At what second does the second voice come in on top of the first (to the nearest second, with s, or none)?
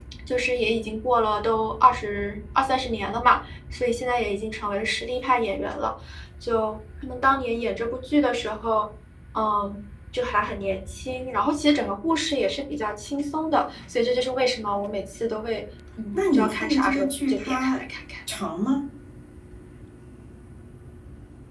16 s